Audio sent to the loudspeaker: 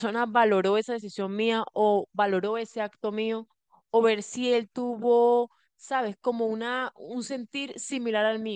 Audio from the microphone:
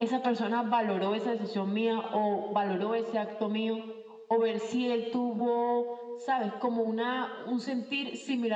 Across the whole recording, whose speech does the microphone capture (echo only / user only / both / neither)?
echo only